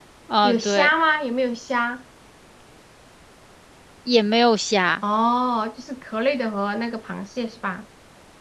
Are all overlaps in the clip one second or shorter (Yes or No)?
Yes